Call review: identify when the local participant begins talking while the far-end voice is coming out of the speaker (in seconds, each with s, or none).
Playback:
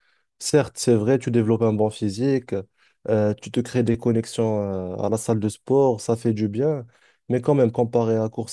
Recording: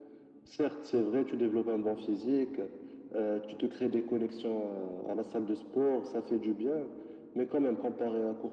none